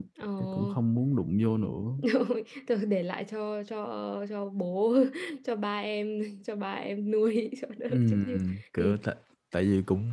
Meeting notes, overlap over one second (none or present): none